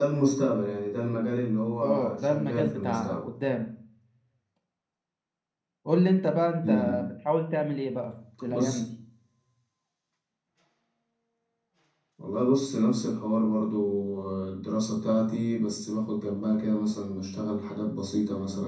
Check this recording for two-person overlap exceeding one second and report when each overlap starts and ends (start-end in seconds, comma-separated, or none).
1.8-3.2